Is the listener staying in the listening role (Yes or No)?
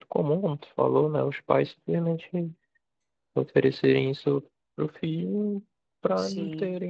Yes